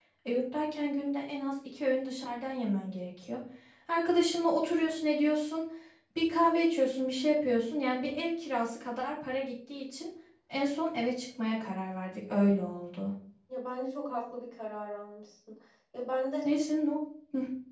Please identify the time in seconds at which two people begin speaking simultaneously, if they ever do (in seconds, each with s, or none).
none